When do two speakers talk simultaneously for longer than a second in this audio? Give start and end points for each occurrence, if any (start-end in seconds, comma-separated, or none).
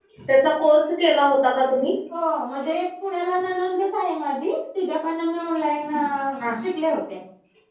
none